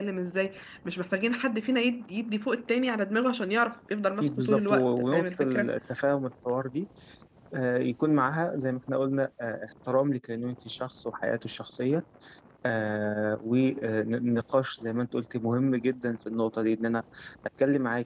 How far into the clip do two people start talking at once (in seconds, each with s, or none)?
4.2 s